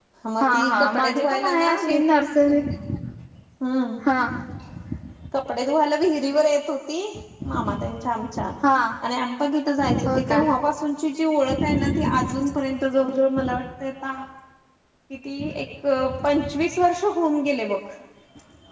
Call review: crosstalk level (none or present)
present